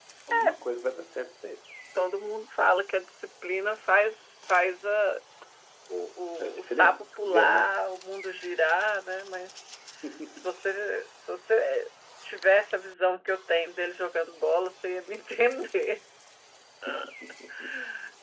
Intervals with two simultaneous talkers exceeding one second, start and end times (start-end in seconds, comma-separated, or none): 6.4-7.7